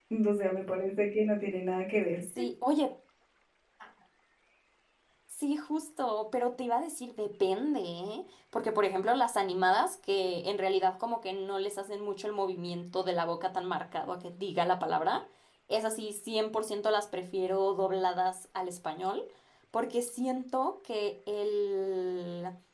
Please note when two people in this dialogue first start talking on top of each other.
none

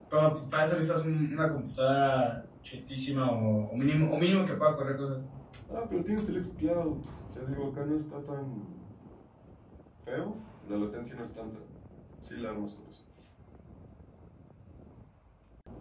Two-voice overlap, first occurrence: none

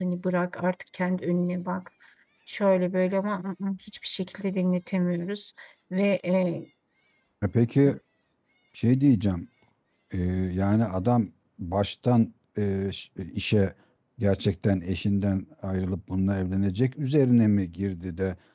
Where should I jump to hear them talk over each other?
none

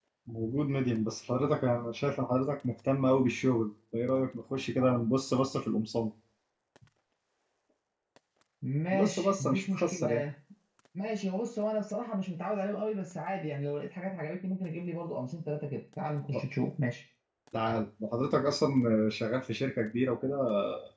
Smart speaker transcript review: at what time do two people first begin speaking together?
8.9 s

